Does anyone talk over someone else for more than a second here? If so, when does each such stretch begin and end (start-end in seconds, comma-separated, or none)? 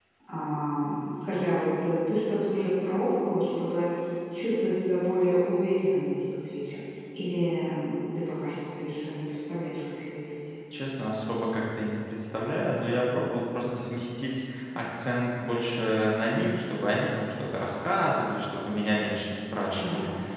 none